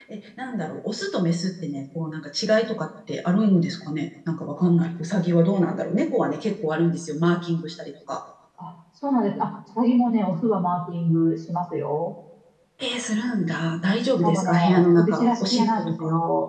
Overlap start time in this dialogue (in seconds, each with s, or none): 14.2 s